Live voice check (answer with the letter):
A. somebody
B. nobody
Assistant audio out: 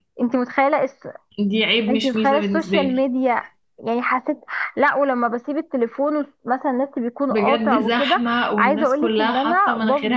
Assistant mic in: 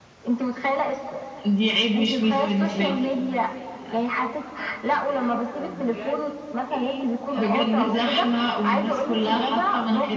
A